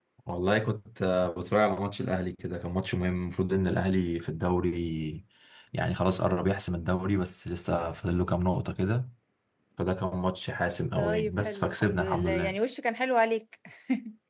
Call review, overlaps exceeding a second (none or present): present